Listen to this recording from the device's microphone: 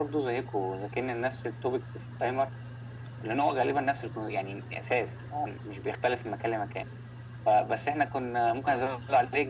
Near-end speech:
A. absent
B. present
A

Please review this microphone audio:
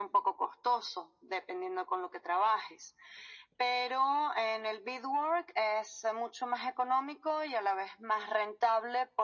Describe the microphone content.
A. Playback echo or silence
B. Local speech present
A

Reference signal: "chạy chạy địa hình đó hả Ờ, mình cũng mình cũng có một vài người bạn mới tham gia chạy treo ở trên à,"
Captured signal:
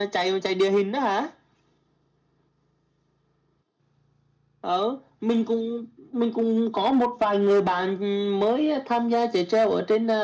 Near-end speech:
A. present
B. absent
B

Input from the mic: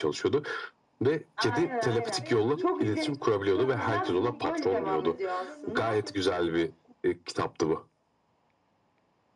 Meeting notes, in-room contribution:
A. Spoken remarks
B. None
A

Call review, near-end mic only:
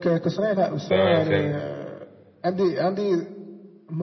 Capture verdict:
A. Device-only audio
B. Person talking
B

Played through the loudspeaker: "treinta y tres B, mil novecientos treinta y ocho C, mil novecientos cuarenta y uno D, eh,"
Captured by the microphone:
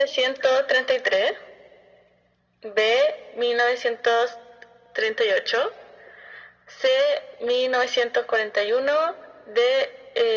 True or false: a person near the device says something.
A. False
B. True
A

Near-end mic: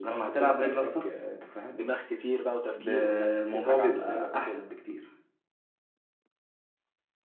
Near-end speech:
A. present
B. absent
A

